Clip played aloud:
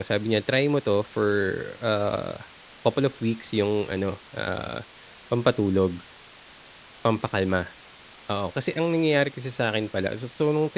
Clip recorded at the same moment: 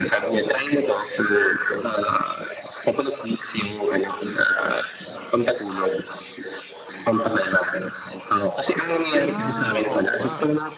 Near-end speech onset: 9.1 s

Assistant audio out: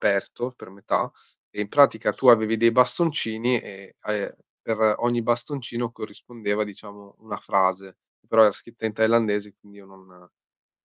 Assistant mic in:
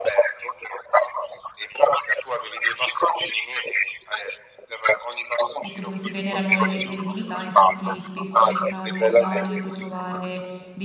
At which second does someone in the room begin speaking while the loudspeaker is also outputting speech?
5.6 s

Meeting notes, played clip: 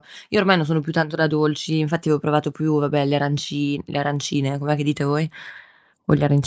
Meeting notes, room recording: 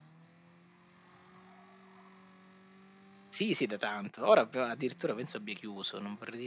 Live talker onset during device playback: 3.3 s

